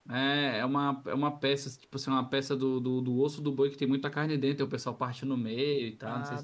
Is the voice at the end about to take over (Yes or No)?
Yes